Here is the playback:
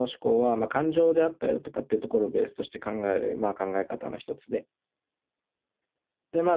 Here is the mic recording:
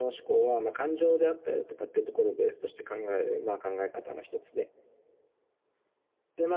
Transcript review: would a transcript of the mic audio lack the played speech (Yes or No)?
No